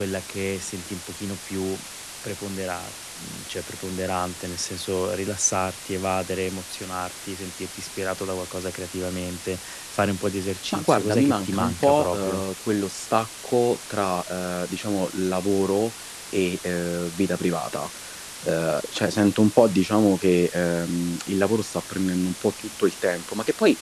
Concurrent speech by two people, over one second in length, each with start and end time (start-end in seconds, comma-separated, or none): 10.7-12.4